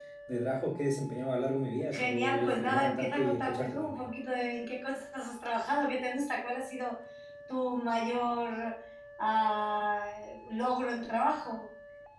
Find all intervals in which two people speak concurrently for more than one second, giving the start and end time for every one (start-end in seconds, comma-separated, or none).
1.9-4.0